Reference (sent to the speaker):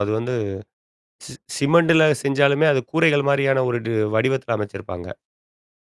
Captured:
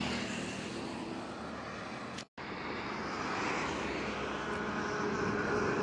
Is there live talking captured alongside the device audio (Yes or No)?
No